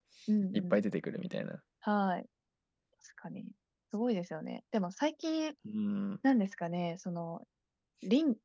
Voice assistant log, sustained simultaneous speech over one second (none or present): none